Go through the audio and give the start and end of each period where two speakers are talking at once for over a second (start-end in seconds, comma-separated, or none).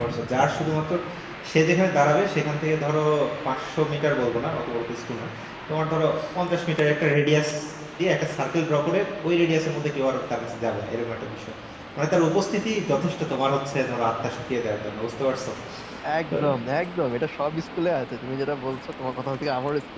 none